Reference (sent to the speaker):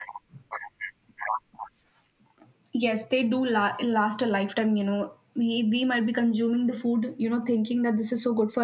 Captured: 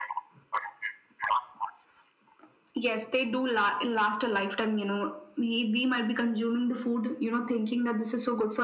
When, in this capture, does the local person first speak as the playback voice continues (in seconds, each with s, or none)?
none